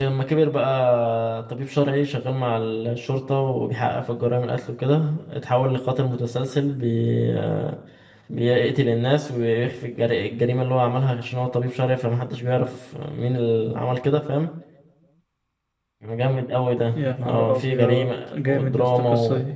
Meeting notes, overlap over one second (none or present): present